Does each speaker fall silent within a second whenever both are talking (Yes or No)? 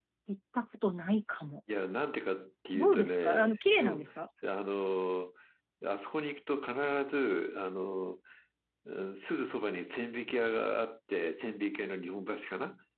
No